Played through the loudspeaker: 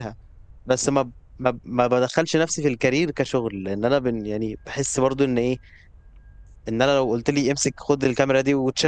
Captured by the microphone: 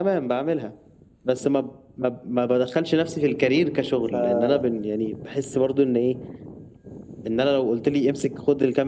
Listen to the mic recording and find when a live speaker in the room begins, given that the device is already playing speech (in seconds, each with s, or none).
4.0 s